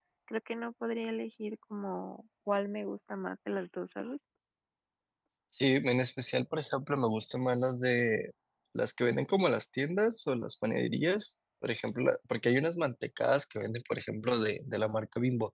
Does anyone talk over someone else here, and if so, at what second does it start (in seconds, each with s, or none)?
none